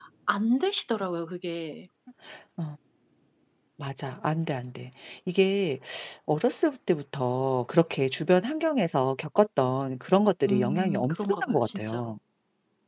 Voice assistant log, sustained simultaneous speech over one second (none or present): present